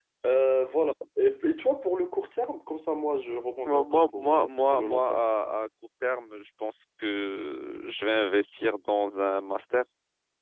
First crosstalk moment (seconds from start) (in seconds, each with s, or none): 3.6 s